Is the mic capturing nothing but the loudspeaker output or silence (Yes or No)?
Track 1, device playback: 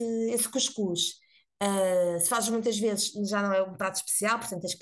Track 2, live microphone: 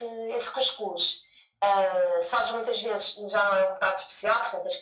Yes